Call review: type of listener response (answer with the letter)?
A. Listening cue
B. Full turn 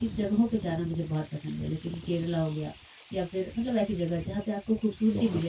B